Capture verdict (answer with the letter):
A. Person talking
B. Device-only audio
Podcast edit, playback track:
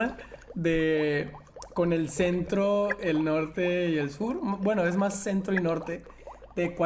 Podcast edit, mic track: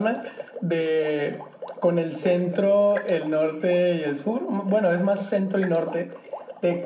B